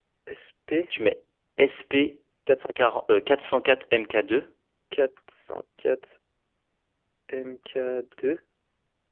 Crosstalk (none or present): none